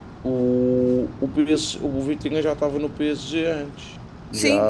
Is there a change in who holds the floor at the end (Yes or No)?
Yes